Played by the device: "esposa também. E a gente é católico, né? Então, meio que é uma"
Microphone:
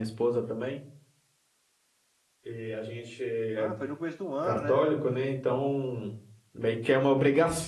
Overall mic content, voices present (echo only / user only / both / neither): both